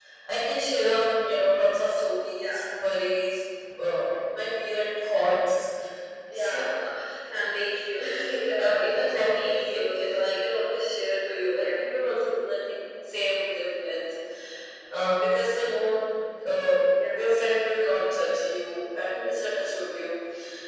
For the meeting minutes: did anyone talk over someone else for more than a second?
Yes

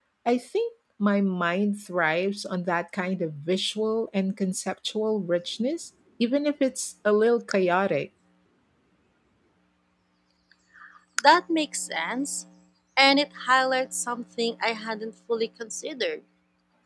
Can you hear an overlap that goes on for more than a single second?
No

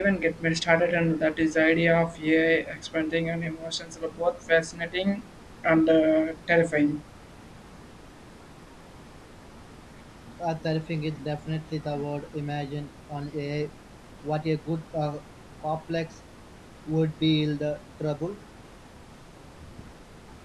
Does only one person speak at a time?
Yes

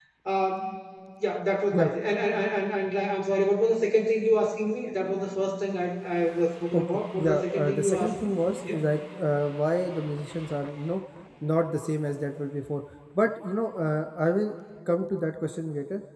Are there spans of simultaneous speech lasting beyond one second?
Yes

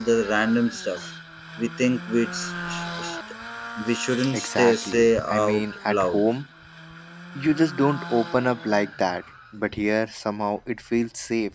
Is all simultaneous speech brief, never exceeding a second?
No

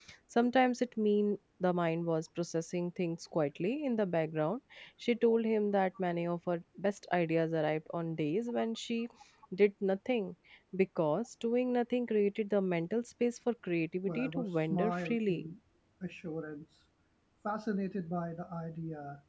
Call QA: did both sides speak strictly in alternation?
No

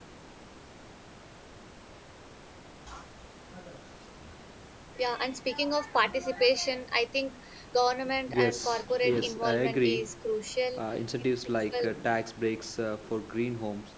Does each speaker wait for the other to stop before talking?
No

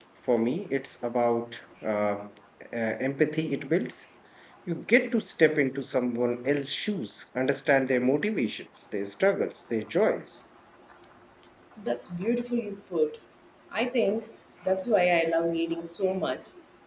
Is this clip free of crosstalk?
Yes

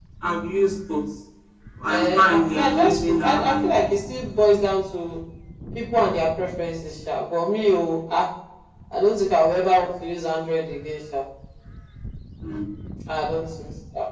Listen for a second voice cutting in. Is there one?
Yes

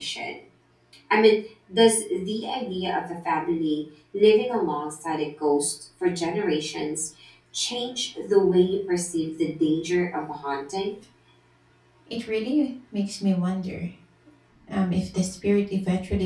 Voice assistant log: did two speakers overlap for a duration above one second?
No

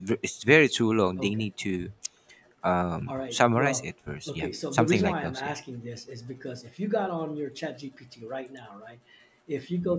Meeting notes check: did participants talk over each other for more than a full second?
Yes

